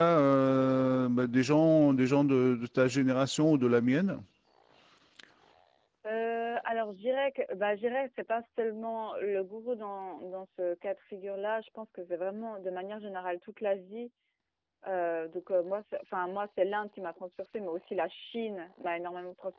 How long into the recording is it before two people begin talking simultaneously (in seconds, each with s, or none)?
none